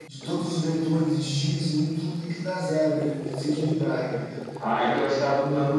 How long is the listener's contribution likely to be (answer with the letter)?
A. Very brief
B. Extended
B